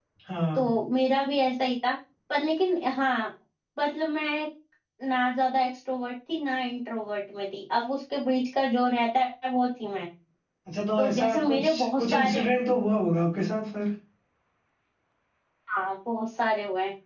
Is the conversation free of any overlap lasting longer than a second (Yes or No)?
No